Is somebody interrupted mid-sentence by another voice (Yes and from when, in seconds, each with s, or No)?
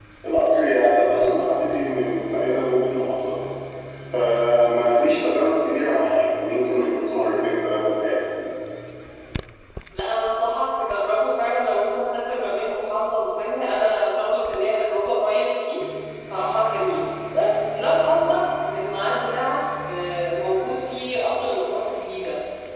No